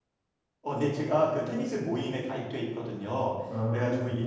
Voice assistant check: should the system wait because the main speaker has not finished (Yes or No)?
Yes